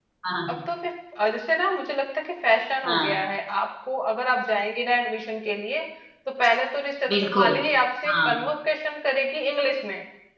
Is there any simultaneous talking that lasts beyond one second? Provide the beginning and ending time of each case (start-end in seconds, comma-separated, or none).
none